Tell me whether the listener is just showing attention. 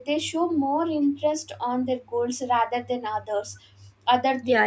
No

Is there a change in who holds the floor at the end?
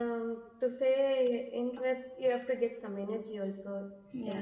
No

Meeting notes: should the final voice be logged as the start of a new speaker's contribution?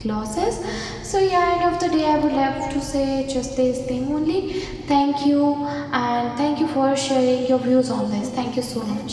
Yes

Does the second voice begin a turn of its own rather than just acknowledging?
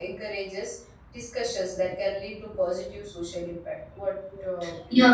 Yes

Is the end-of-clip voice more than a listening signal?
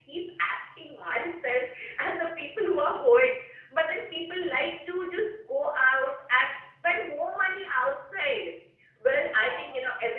No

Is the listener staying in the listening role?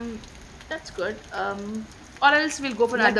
No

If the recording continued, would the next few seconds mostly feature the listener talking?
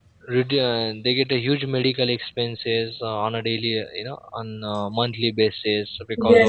Yes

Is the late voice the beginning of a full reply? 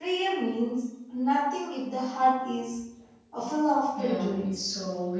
Yes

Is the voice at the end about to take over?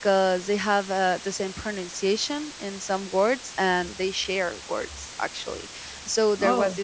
No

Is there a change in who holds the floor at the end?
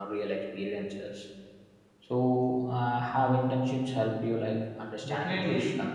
Yes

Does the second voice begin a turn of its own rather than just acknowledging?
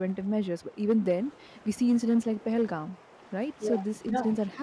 No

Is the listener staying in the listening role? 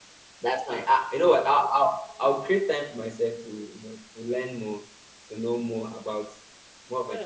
No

